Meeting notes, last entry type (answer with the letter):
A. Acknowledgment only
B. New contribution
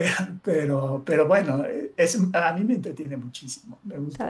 B